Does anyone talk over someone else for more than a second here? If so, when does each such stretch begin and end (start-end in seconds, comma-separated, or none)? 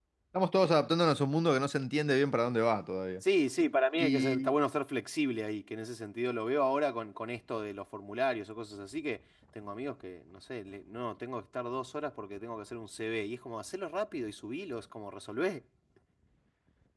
none